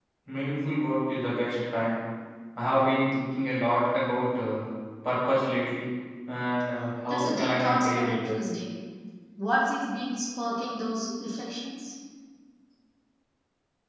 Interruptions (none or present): present